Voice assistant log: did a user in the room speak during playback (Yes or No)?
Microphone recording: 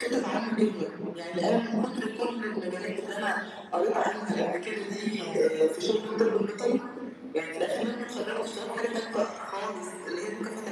Yes